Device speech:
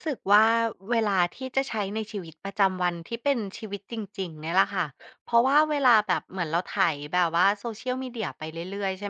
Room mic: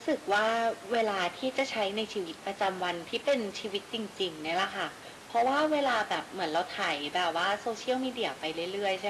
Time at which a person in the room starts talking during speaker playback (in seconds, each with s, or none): none